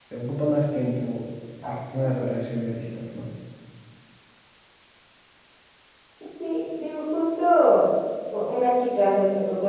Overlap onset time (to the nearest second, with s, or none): none